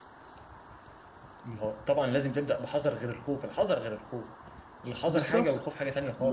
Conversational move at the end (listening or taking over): taking over